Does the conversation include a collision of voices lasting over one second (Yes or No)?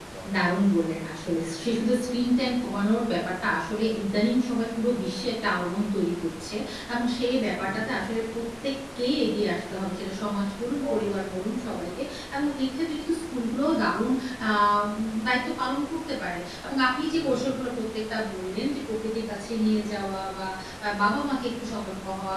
No